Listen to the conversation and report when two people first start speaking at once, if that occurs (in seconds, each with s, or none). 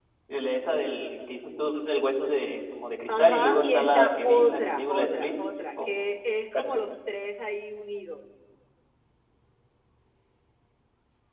3.1 s